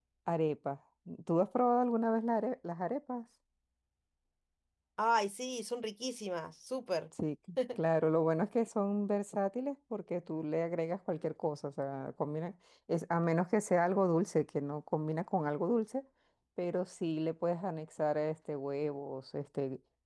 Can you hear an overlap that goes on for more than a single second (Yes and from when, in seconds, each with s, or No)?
No